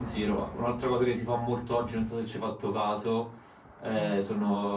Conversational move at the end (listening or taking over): listening